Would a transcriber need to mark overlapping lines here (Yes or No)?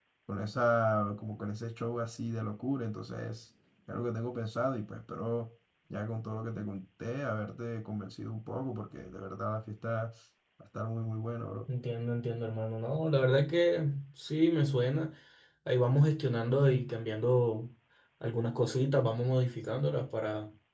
No